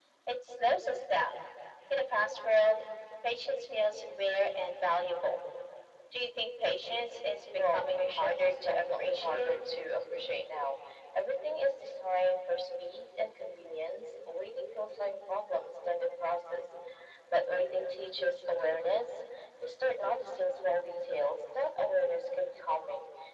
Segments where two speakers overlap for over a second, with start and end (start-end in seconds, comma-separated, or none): 7.6-9.6